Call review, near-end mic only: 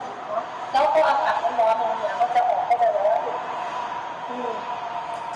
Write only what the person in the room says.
none

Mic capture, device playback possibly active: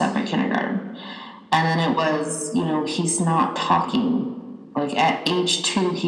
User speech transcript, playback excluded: none

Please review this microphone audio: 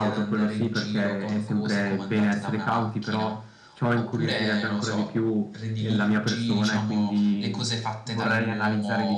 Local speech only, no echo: none

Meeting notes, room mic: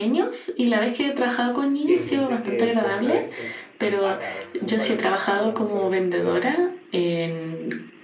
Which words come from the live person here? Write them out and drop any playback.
y hay gente que vos sabés que no paga, o sea, no paga sus facturas, no paga lo que debe

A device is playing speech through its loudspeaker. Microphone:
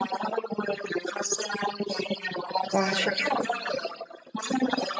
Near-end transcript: 哇，确

